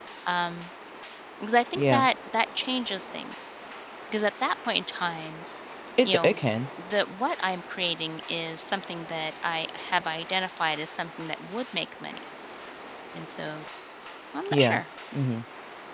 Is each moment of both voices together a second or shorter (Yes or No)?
Yes